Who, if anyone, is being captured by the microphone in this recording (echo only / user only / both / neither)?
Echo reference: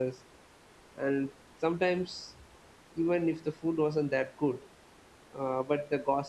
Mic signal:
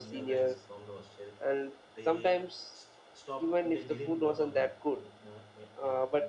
both